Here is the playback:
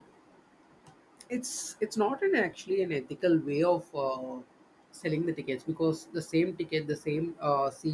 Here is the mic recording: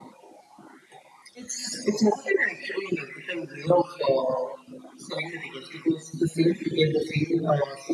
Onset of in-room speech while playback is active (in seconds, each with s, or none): none